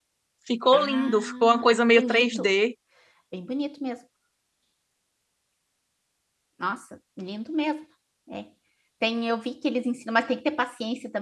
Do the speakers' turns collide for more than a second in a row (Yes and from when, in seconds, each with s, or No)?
Yes, from 0.7 s